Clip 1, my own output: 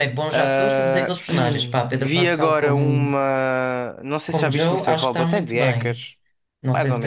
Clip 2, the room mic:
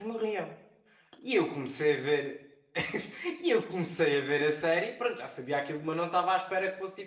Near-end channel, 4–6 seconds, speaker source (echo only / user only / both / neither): user only